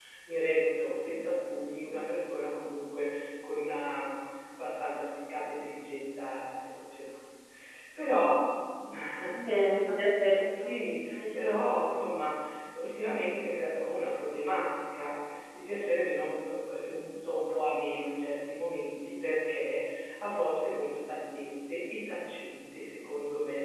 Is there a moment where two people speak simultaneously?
Yes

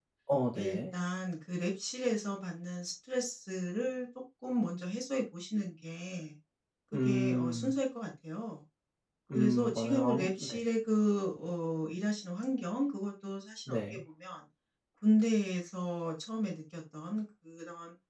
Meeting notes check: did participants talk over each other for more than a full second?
Yes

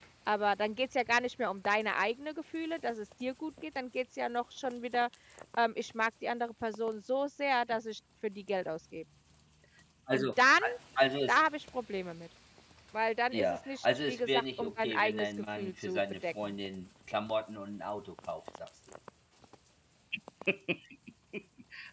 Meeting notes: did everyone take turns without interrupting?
No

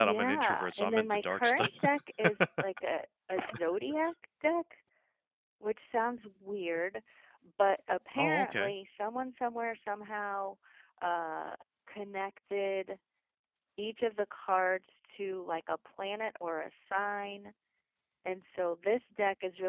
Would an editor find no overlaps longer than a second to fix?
No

